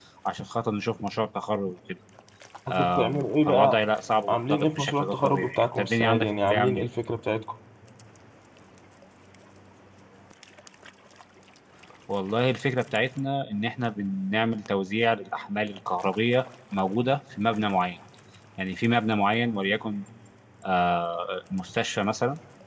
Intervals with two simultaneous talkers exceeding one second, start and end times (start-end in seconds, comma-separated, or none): 4.3-6.9